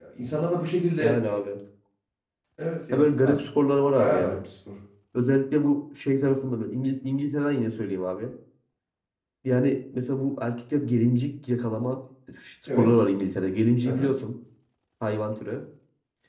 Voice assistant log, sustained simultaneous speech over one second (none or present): none